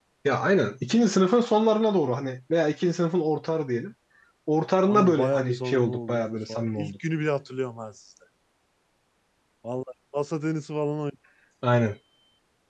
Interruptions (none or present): present